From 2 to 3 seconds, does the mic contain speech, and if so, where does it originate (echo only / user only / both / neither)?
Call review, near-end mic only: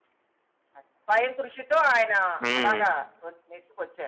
both